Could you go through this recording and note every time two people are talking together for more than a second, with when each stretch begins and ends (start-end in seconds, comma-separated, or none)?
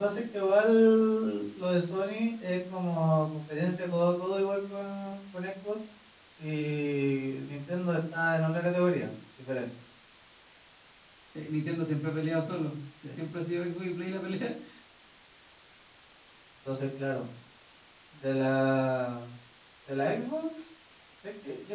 none